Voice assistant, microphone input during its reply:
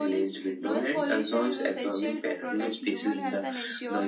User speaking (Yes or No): No